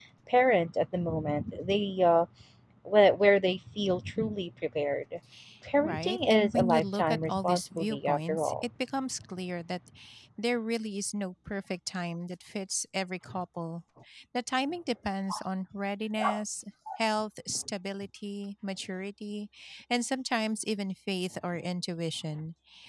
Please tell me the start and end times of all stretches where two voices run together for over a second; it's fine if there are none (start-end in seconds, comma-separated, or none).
5.8-8.6